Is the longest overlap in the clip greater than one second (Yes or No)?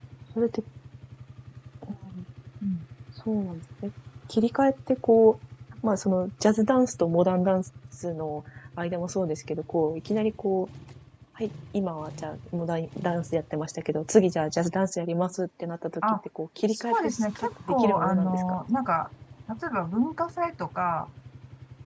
Yes